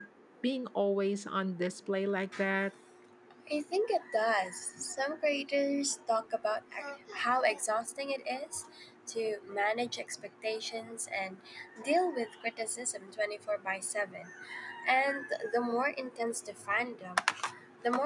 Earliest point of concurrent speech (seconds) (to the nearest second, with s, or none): none